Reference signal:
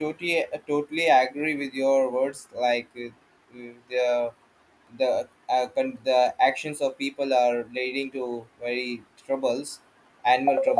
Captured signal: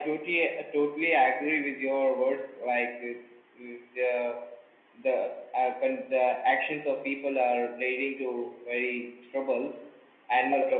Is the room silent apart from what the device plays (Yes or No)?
Yes